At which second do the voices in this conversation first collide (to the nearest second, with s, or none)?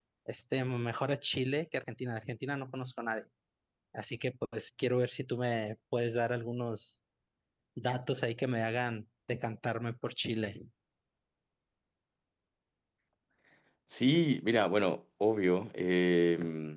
none